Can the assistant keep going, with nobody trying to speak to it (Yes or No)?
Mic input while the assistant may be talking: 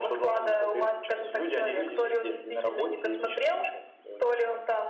Yes